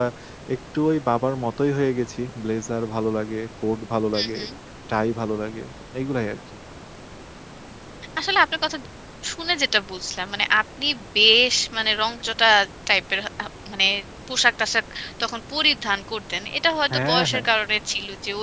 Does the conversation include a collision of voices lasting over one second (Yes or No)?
No